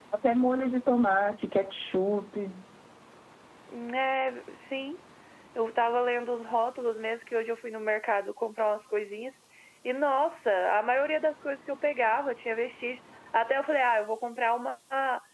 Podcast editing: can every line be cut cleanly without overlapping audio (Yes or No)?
Yes